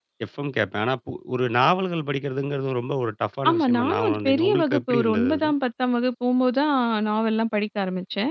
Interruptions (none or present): present